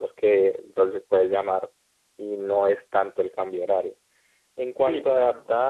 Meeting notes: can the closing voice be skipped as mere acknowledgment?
Yes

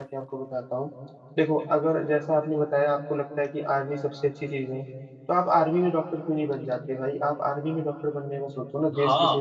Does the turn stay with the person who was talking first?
No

